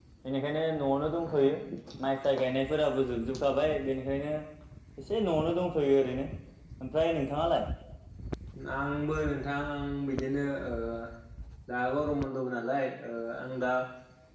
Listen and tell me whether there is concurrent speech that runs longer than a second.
No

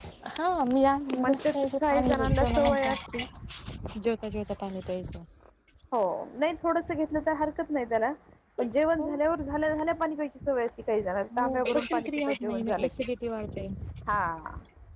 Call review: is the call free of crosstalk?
No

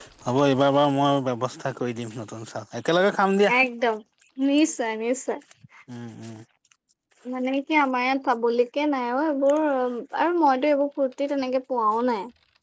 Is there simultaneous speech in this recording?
No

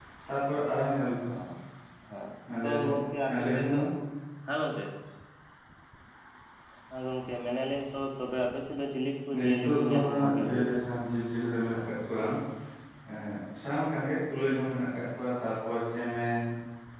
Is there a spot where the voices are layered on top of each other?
Yes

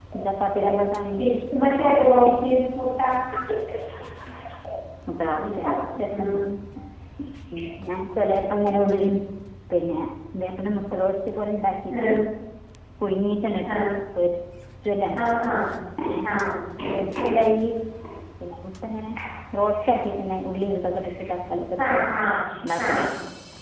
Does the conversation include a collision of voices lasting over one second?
No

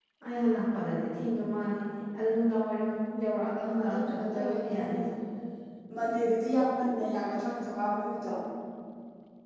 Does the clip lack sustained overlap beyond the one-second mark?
No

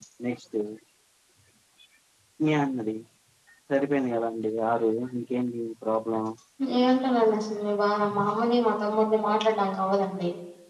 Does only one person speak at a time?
Yes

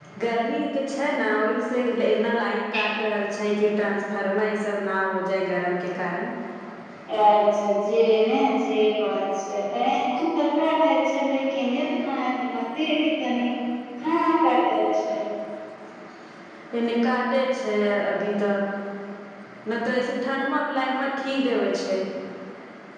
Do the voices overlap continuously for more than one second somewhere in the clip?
No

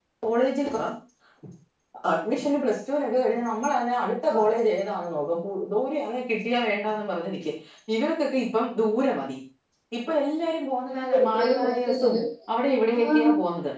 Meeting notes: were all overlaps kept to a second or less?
No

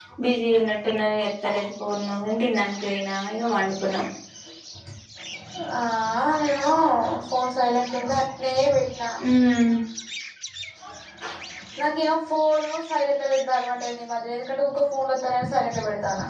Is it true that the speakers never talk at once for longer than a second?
Yes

